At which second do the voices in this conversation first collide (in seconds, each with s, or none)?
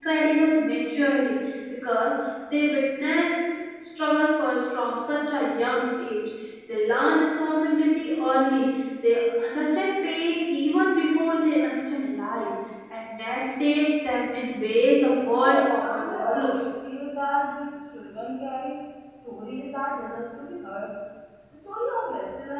15.4 s